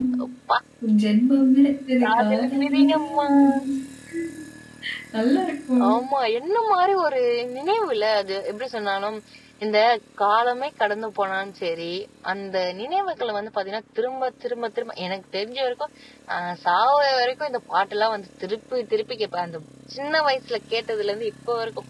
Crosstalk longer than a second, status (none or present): present